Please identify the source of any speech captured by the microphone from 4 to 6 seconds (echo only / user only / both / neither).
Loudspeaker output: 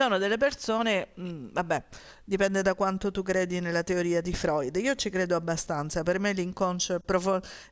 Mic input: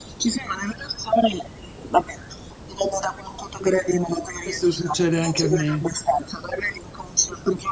both